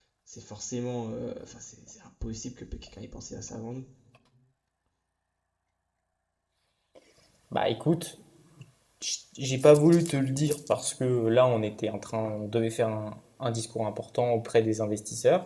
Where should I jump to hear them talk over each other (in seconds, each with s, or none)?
none